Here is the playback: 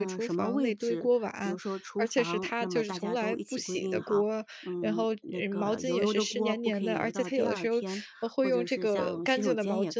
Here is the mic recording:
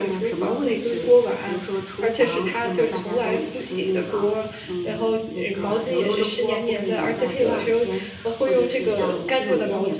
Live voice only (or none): none